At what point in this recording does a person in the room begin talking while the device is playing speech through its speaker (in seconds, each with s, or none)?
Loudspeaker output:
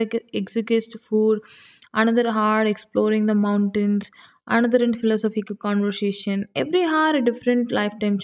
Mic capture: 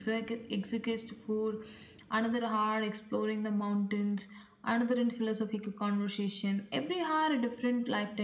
none